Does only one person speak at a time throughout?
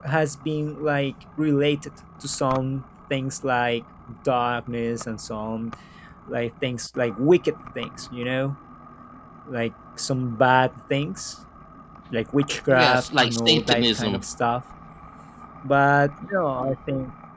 No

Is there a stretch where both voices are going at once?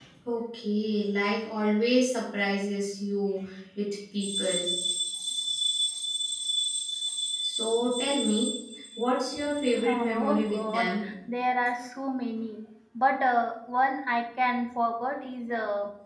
Yes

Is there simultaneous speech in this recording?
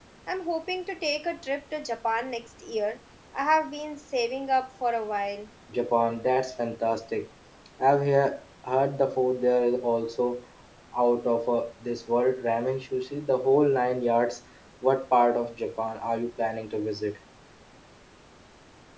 No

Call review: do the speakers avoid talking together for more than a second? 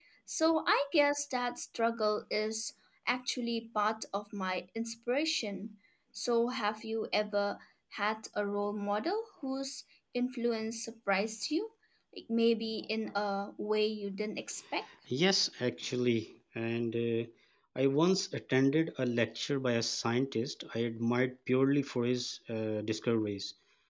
Yes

